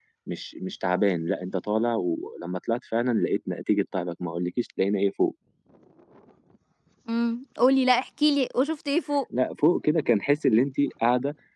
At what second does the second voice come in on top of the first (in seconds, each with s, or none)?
none